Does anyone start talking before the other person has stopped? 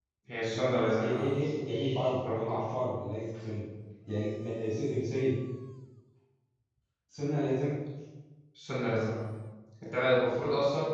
Yes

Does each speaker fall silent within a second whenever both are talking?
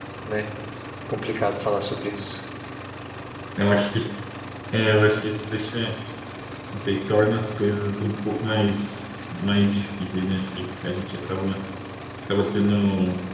Yes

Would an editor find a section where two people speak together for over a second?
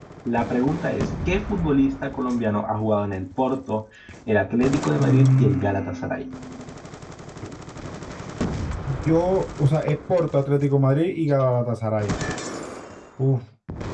Yes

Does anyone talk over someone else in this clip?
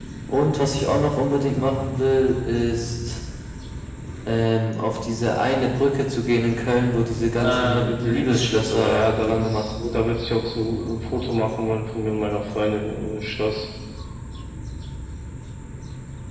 Yes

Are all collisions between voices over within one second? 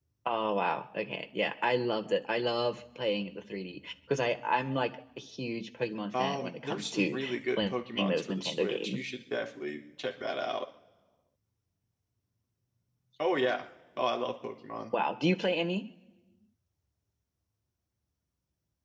No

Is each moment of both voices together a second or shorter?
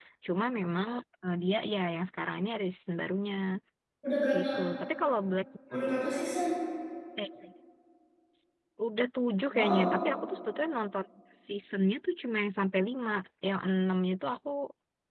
Yes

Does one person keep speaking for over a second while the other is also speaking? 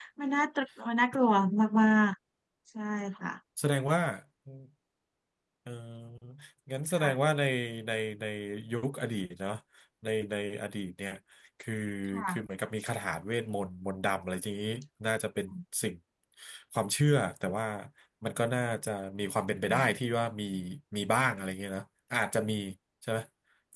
No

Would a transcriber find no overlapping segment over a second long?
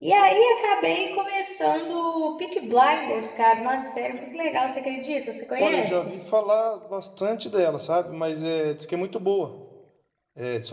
Yes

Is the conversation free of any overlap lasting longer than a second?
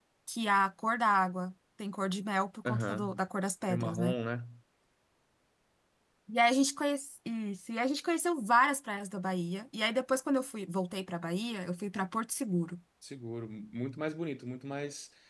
Yes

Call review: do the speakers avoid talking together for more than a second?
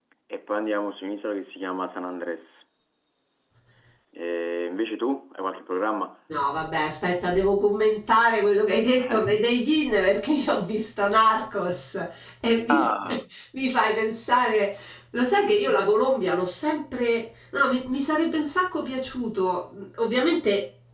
Yes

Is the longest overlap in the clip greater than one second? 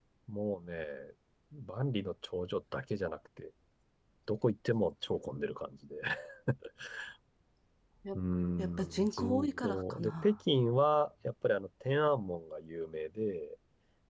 Yes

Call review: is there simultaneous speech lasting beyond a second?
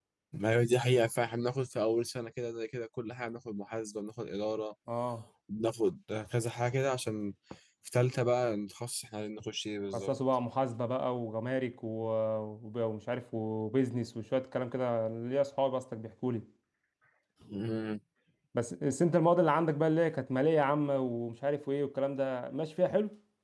No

